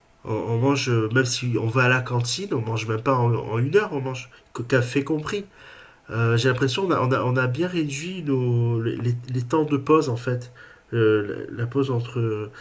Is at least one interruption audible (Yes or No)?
No